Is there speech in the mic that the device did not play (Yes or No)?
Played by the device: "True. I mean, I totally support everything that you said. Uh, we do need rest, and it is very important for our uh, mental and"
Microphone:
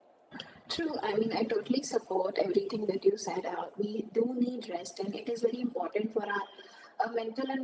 No